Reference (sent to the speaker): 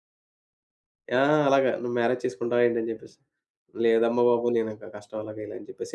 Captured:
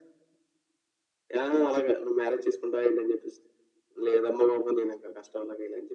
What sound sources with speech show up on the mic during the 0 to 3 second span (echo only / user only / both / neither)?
echo only